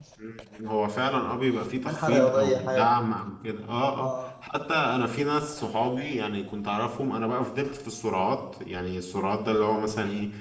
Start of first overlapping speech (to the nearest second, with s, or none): 2 s